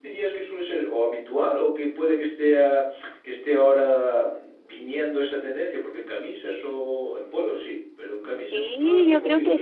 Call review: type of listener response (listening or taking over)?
taking over